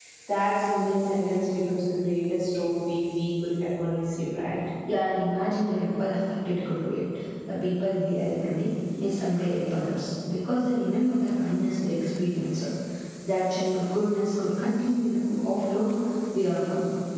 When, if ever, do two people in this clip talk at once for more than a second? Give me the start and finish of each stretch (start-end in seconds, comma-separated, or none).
none